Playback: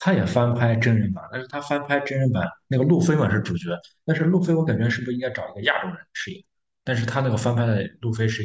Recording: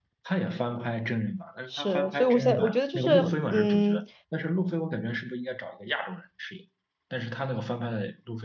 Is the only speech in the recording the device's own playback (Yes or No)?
No